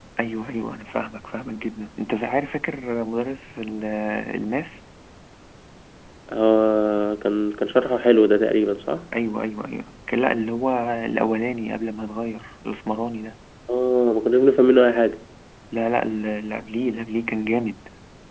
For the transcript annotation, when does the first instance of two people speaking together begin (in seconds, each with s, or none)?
none